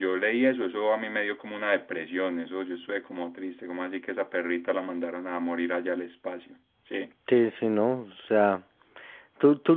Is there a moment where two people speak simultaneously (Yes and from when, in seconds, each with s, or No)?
No